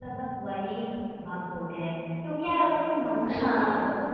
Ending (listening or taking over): listening